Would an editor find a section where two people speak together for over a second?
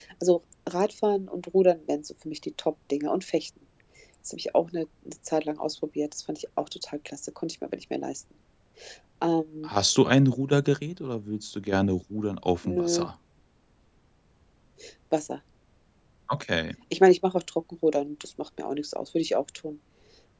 No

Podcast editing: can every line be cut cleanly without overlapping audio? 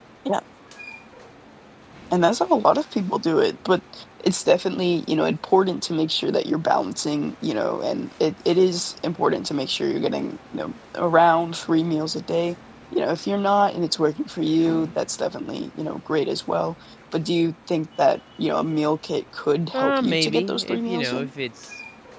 No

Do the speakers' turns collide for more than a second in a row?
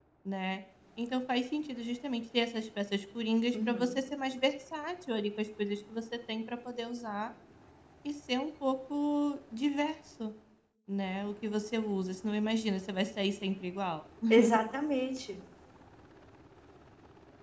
No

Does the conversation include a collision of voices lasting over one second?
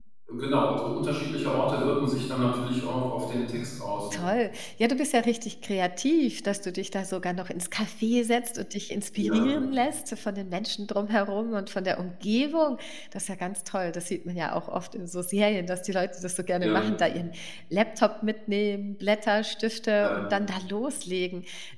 No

